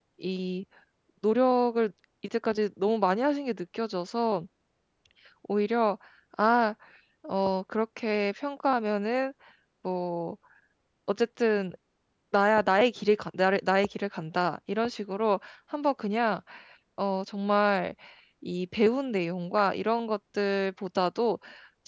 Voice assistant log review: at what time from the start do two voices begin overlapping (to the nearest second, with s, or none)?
none